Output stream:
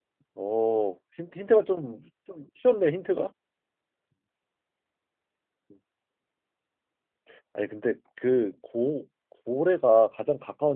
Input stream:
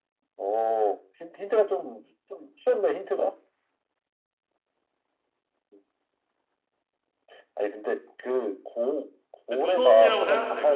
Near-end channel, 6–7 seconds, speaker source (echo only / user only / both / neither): neither